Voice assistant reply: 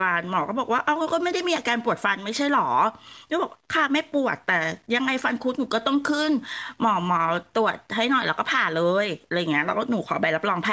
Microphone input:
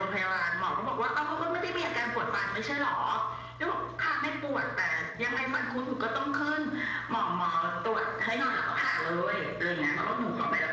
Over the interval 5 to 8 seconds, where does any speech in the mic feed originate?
echo only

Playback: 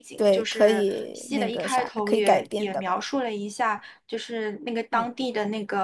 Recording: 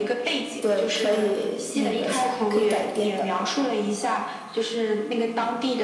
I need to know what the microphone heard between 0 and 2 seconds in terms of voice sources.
echo only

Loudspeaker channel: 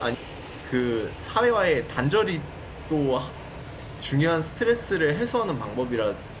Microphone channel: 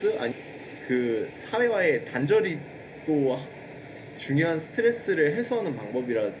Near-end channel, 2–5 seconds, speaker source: echo only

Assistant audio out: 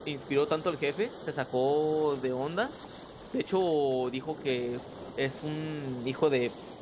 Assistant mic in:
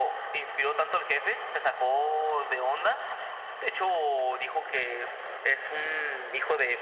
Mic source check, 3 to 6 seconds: echo only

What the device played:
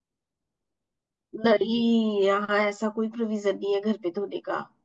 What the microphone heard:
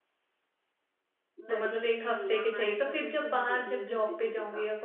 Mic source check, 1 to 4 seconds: both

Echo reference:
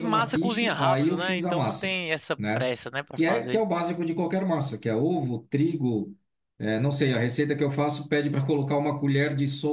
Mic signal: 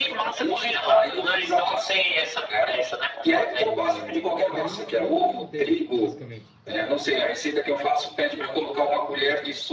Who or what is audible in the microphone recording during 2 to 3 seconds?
echo only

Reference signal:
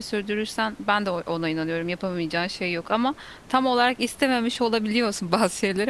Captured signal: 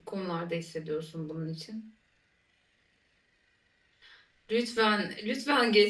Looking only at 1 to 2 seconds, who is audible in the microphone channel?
user only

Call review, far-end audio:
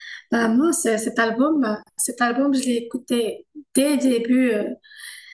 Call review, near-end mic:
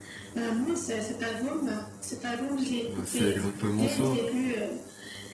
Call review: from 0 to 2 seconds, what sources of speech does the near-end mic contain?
echo only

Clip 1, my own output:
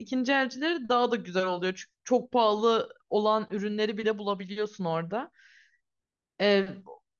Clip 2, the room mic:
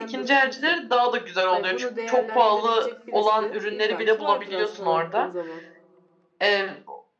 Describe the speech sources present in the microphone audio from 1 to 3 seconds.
both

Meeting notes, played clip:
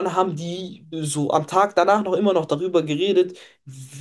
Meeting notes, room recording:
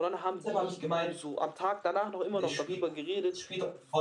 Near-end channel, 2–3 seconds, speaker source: both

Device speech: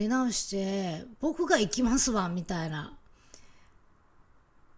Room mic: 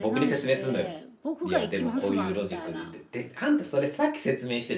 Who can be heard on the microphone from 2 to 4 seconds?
both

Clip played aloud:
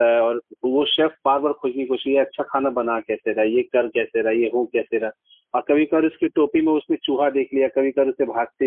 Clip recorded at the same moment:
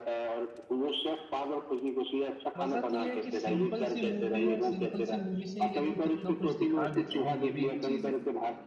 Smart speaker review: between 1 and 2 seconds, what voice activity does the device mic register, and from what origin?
echo only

